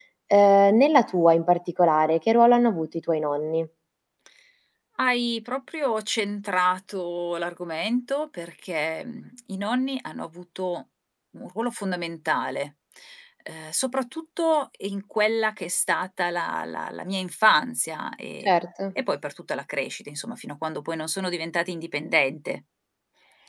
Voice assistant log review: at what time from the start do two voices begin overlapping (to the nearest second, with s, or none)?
none